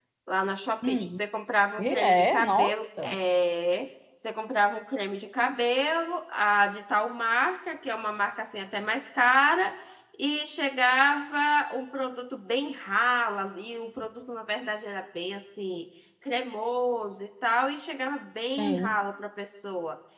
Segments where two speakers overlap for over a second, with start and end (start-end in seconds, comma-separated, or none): 1.8-3.2